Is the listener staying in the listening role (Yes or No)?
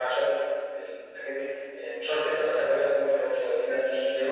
No